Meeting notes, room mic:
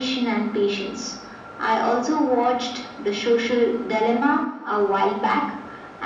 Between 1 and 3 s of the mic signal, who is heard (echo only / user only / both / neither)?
echo only